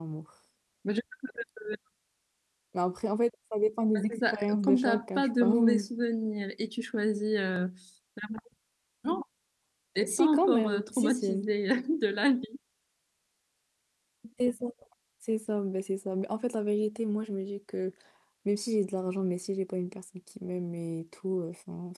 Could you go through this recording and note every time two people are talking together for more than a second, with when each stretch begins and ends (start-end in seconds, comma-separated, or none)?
4.0-5.8, 10.0-11.4